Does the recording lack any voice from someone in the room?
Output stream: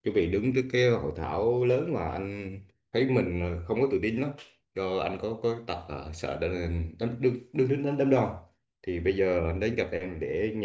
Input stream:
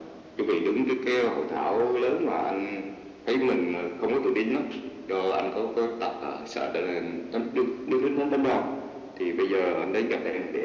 Yes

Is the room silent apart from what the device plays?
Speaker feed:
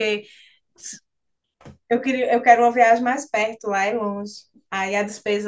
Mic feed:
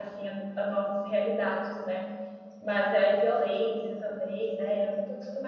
No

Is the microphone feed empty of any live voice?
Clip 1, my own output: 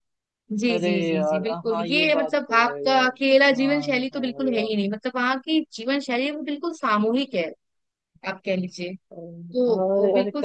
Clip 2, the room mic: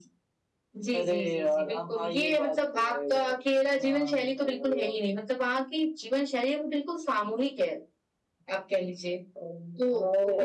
Yes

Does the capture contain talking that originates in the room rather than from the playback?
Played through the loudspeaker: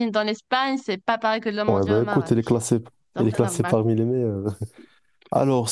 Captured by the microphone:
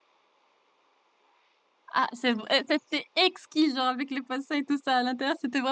Yes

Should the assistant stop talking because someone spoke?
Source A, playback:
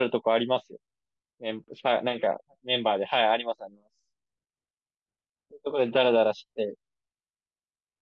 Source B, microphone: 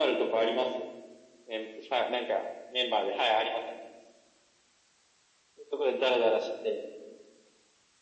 No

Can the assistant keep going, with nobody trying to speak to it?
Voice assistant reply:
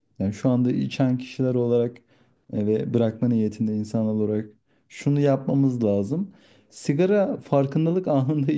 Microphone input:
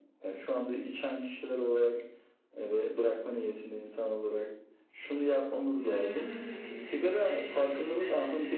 No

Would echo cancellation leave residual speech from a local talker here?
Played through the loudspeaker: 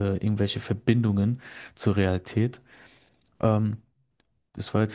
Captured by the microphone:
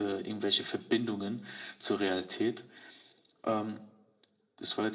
No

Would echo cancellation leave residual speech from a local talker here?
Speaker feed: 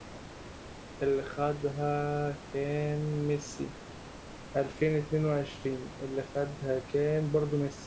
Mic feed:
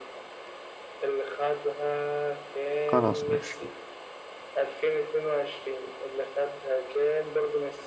Yes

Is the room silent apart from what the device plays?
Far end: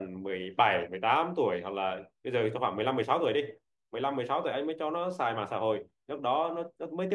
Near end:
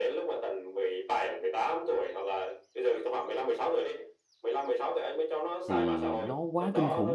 No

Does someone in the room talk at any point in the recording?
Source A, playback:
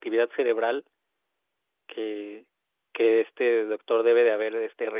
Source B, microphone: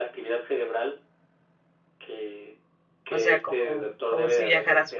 Yes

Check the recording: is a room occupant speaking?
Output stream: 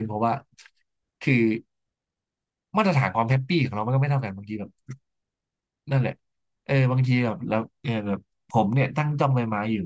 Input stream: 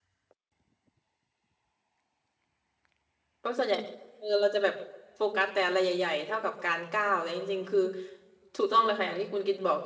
Yes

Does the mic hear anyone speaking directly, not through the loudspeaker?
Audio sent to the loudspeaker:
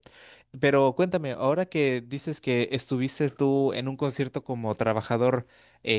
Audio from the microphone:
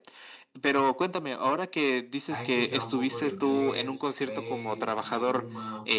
Yes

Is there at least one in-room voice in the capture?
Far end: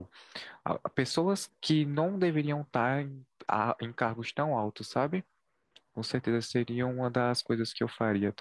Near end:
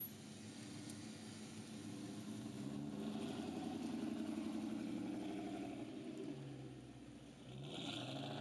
No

